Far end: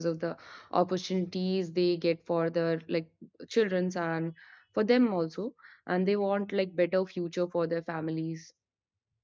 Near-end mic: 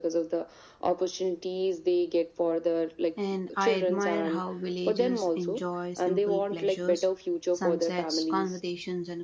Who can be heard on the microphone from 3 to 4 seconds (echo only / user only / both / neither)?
both